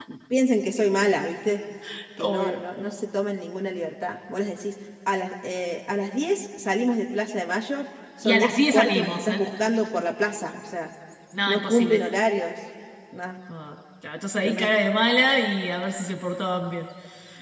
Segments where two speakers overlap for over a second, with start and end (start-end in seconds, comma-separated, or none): 8.2-9.4